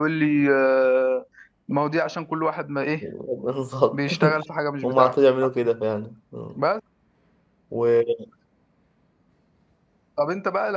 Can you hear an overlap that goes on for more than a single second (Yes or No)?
No